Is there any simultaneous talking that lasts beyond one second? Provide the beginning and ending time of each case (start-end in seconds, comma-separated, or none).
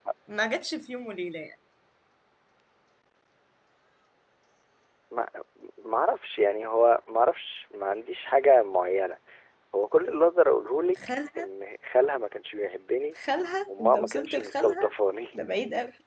13.7-14.9